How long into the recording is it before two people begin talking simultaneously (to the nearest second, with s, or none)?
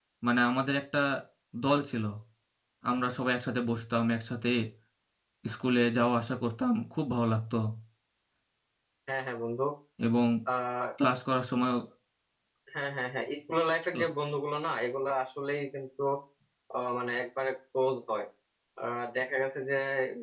none